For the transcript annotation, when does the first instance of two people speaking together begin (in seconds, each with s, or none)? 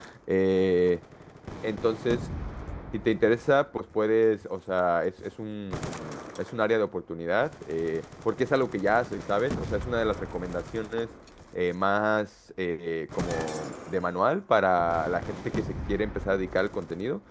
none